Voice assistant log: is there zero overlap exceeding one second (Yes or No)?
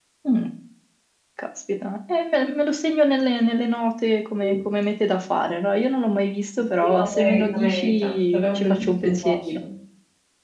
No